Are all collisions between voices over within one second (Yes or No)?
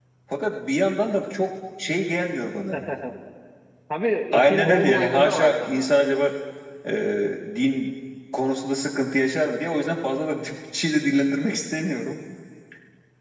No